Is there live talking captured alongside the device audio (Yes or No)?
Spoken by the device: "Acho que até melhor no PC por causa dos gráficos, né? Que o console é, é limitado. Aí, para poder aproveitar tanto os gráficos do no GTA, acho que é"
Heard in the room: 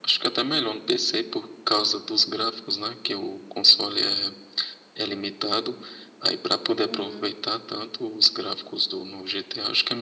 Yes